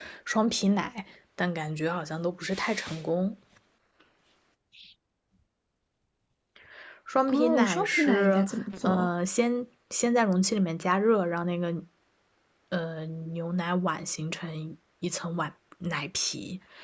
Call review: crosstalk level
present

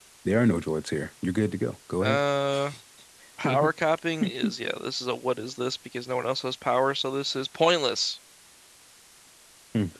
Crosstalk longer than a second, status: none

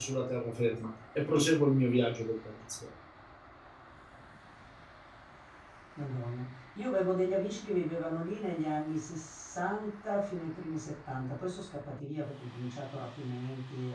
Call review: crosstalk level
none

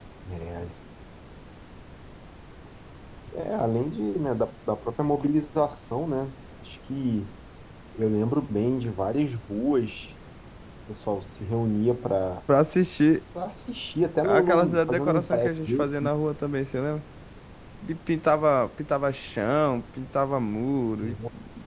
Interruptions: present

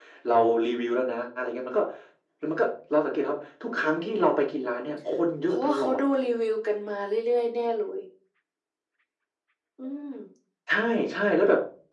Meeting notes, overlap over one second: none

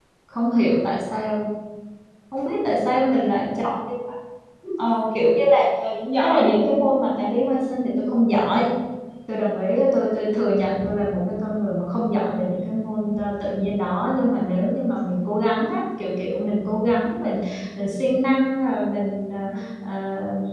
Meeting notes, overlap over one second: none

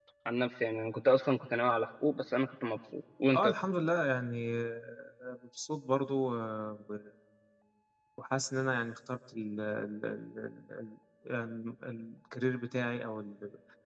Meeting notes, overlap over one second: none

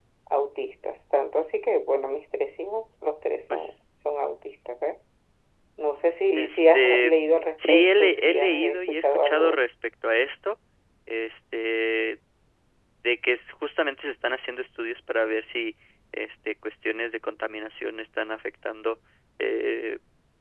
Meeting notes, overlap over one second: present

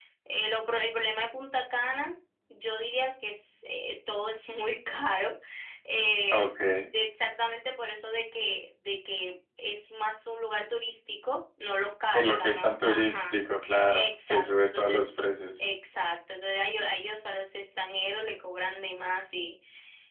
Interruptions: present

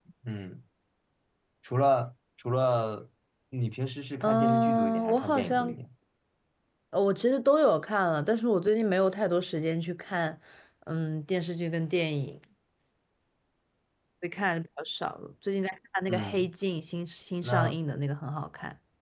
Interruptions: present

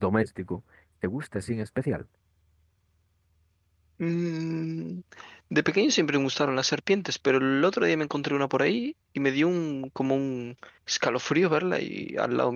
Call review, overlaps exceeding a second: none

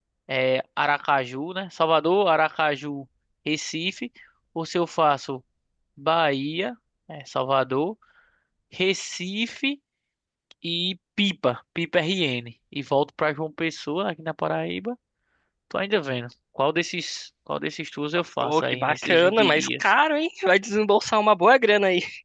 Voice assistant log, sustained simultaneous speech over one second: present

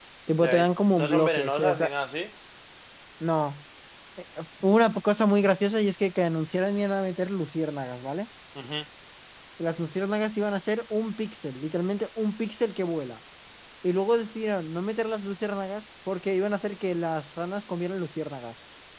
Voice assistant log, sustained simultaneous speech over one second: present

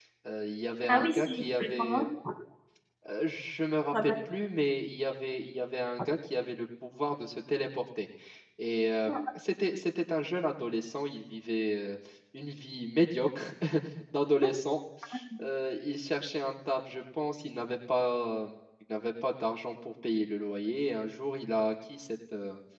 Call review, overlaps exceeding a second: present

